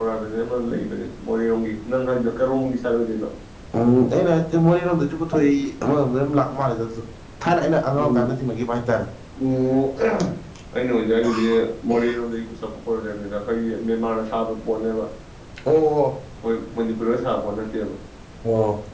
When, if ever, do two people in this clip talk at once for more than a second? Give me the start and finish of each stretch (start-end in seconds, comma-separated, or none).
none